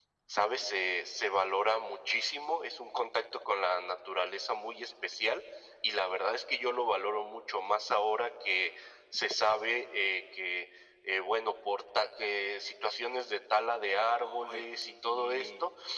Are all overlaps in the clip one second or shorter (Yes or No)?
No